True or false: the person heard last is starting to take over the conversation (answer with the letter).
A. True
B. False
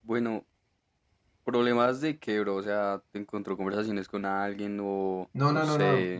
A